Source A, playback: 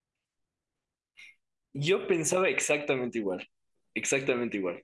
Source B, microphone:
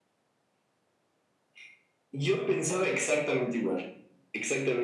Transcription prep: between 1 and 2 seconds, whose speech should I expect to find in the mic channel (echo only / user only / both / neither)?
neither